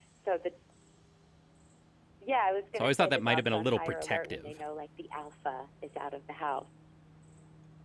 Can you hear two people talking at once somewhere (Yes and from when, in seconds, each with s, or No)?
Yes, from 2.8 s